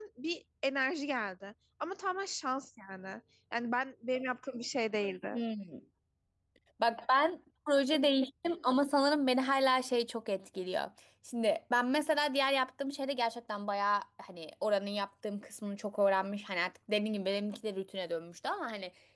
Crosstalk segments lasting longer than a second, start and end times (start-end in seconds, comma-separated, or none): none